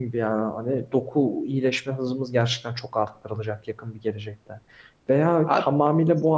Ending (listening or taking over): listening